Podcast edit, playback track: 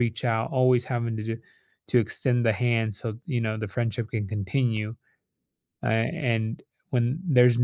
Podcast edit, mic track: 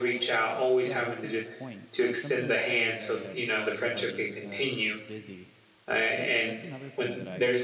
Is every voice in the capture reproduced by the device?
No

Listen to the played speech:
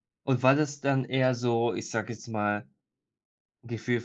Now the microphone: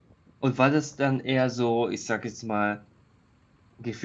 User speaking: No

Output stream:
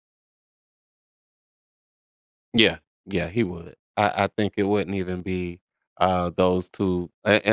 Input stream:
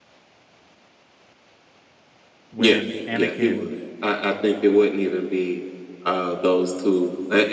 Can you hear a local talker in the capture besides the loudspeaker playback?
Yes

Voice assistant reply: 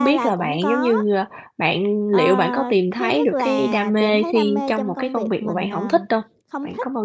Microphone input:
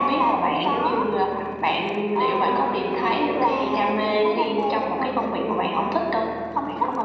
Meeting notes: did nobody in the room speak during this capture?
Yes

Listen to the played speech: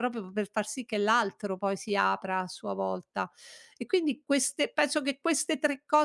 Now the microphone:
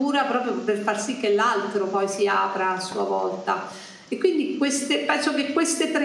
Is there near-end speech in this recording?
No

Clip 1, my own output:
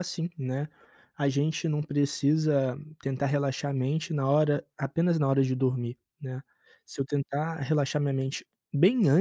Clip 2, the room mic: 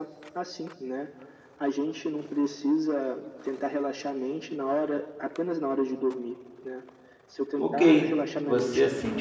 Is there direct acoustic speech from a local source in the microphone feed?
Yes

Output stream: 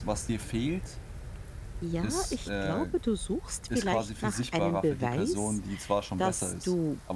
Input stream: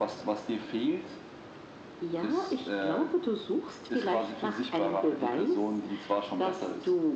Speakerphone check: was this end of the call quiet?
Yes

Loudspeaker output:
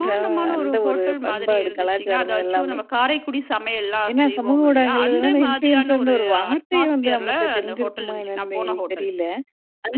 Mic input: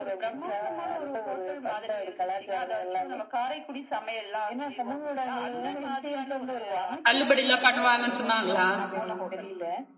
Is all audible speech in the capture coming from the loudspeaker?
No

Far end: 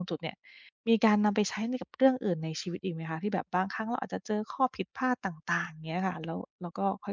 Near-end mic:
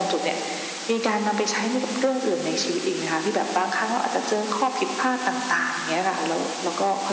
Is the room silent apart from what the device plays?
Yes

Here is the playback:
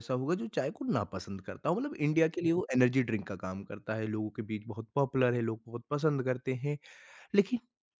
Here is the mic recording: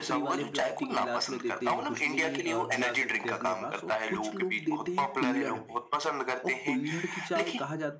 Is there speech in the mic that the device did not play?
Yes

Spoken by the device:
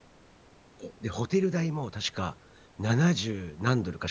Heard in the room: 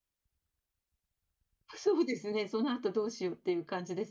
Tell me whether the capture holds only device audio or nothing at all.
No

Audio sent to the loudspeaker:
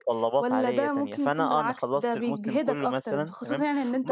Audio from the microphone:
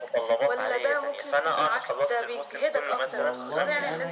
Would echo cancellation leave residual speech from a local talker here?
Yes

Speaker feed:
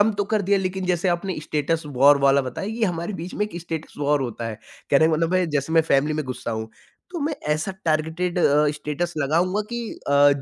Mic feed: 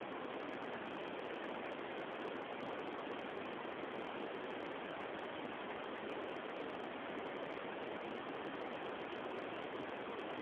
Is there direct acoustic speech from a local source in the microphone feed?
No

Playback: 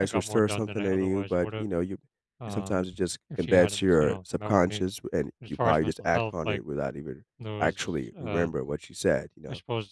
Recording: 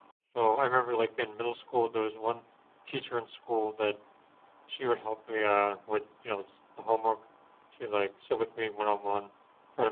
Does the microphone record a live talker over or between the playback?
Yes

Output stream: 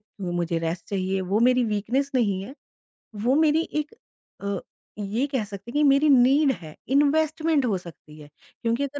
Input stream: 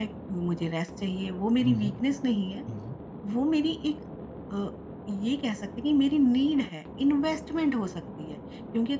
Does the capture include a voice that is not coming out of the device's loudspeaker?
Yes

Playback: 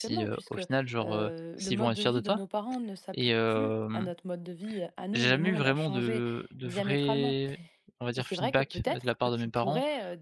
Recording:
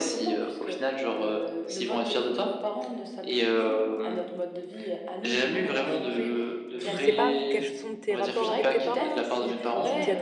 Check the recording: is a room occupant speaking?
Yes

